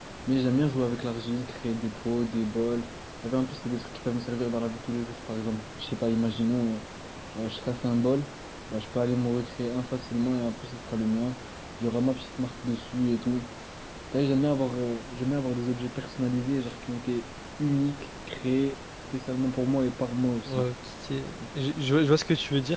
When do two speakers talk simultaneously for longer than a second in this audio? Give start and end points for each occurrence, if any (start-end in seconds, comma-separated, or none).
none